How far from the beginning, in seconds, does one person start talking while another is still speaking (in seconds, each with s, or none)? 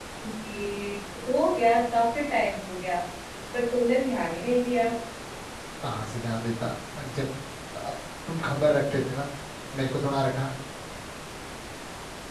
none